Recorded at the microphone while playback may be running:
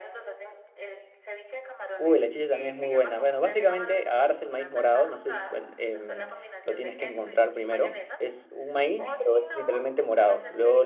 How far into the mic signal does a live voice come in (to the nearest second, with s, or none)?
2 s